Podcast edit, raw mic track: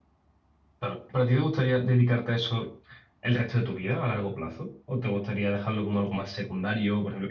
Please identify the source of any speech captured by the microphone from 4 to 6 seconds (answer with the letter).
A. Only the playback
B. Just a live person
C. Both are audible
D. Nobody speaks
B